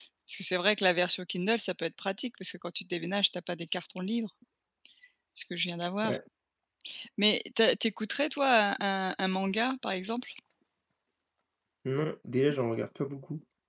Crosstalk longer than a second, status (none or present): none